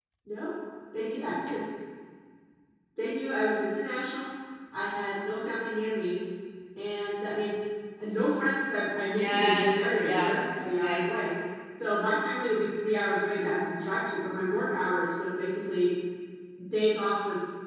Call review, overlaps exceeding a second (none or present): present